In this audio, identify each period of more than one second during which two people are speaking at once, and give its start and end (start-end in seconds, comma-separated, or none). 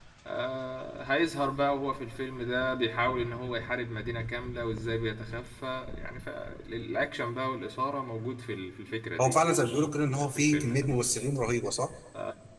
9.2-10.9